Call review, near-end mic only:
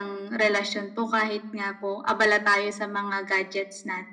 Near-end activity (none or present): none